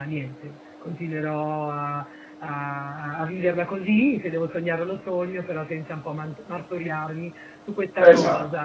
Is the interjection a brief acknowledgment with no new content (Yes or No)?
Yes